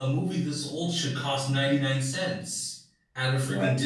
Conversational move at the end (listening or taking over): listening